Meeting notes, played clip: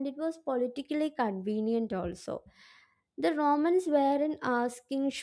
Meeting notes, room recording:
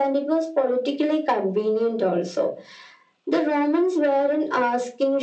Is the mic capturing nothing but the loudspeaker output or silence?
Yes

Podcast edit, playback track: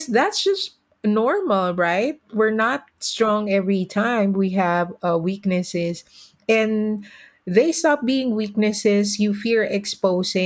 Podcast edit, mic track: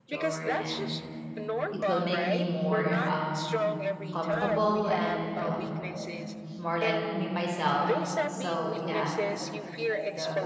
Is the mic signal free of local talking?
No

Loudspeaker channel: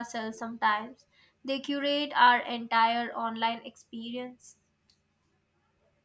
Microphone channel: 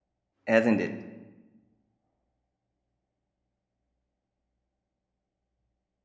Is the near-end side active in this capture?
Yes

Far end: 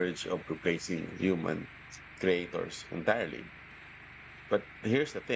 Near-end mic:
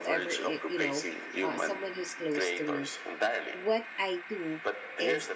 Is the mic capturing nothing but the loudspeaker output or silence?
No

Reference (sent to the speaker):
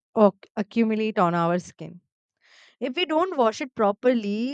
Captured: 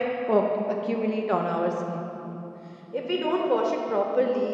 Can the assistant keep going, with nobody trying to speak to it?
Yes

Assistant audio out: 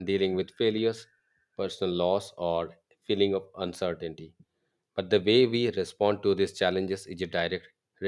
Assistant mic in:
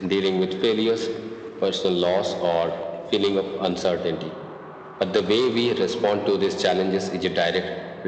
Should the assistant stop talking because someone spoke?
No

